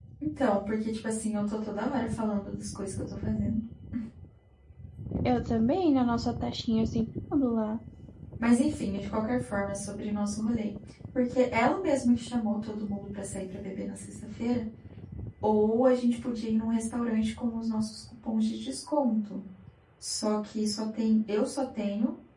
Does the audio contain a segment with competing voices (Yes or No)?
No